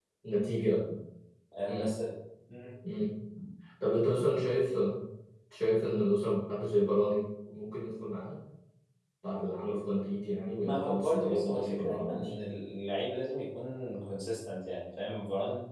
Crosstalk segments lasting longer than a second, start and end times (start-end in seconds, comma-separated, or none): 10.5-12.3